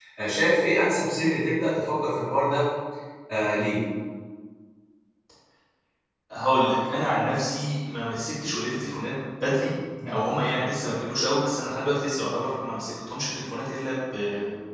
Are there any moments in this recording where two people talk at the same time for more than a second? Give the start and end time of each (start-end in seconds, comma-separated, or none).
none